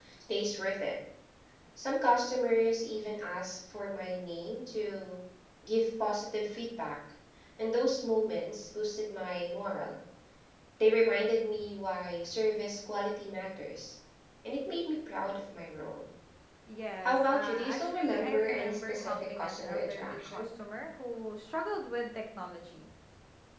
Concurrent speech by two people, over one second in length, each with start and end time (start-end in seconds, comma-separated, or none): 17.0-20.4